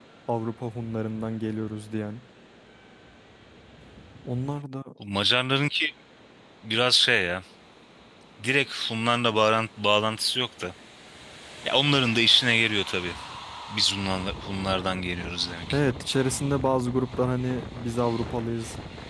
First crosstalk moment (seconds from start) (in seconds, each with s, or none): none